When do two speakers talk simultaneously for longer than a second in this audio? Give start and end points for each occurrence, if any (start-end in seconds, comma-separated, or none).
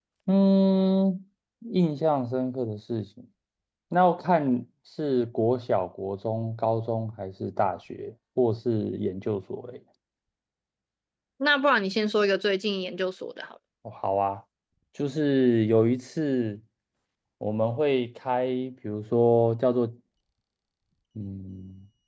none